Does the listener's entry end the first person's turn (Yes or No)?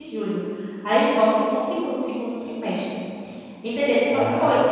No